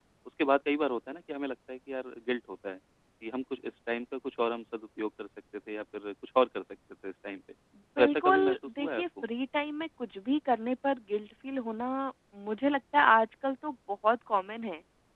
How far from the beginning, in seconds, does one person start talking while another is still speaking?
8.0 s

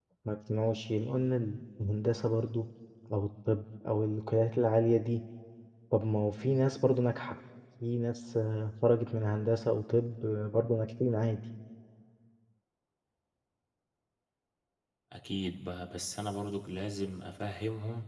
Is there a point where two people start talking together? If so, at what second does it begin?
none

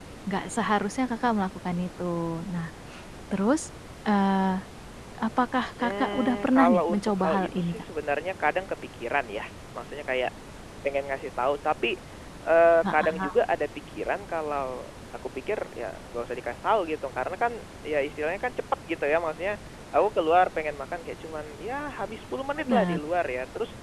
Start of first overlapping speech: 5.8 s

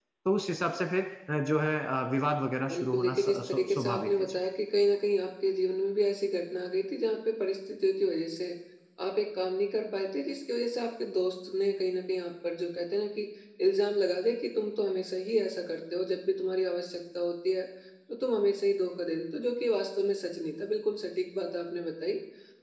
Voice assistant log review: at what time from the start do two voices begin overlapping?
2.7 s

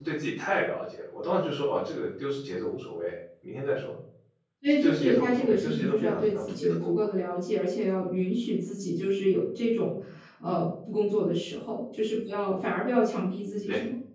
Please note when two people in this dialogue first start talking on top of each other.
4.8 s

